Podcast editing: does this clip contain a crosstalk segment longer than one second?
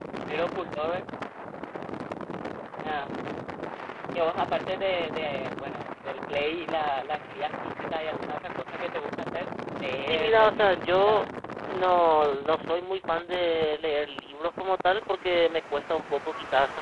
Yes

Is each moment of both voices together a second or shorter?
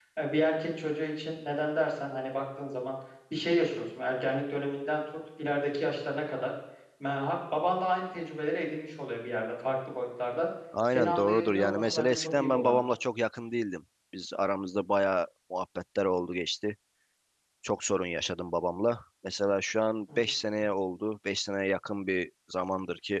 No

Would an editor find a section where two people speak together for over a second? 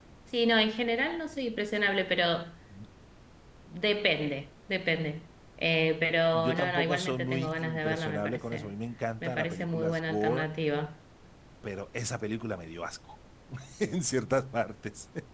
Yes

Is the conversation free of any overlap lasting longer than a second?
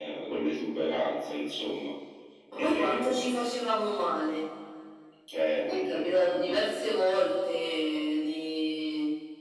No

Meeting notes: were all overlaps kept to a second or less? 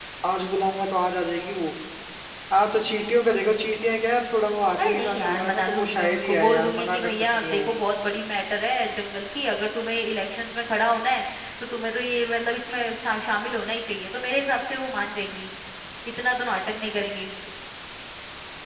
No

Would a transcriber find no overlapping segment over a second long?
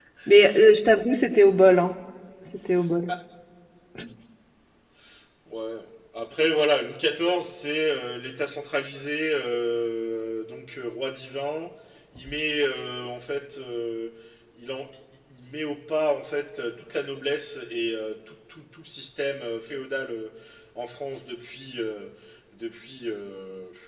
Yes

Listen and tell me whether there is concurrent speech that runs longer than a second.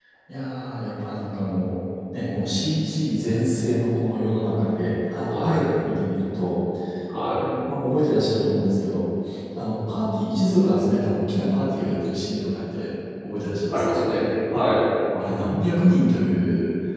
No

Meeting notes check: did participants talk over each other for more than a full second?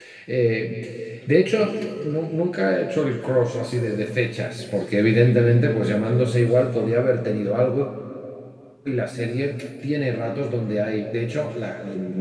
No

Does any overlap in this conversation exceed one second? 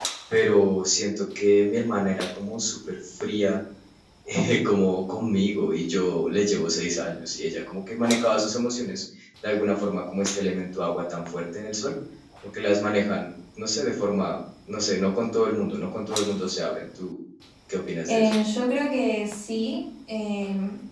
No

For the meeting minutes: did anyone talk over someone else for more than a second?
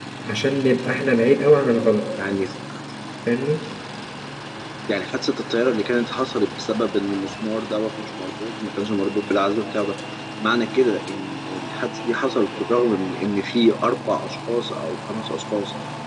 No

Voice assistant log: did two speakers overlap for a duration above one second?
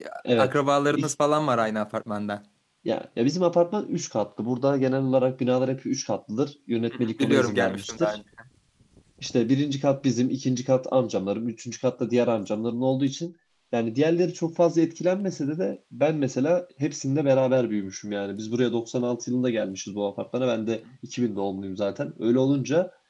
Yes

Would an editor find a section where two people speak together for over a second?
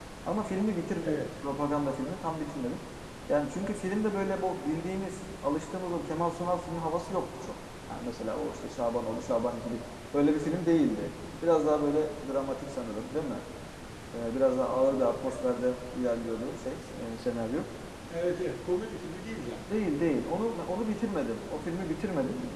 No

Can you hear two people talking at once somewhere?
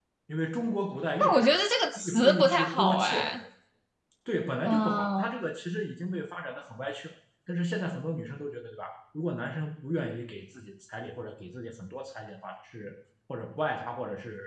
Yes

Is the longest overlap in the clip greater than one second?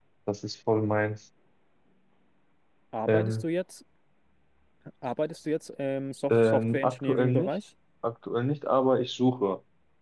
Yes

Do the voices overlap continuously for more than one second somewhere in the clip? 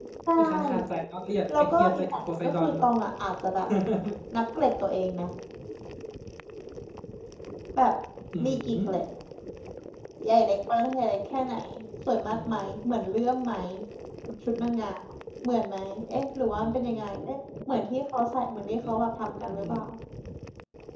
Yes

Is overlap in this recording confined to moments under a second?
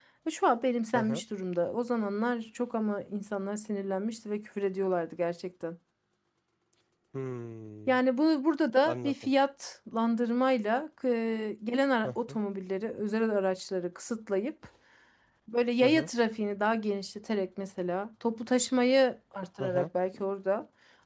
Yes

